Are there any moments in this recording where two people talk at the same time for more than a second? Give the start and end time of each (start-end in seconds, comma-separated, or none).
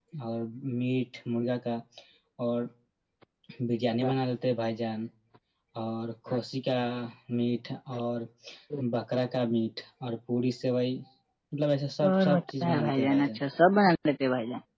12.1-13.4